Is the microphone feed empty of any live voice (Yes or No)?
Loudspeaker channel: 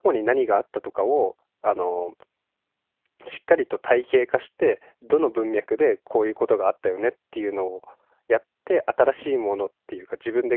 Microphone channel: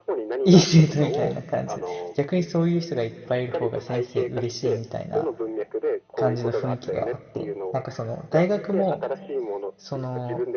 No